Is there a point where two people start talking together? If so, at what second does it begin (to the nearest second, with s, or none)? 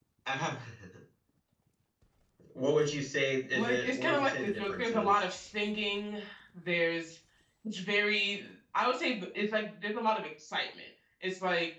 4 s